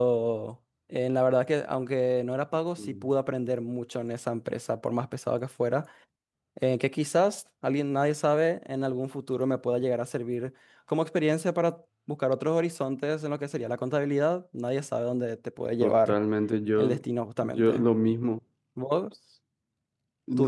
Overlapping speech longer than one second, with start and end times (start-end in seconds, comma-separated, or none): none